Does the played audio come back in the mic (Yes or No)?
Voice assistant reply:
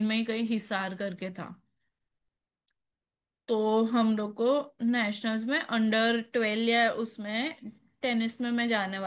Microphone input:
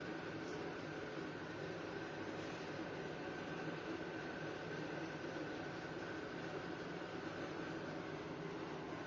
No